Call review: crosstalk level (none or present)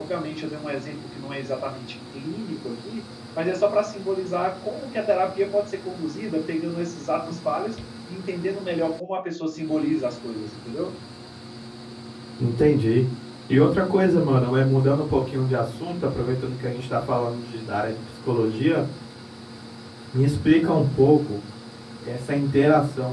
none